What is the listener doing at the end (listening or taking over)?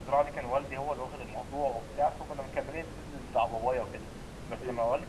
listening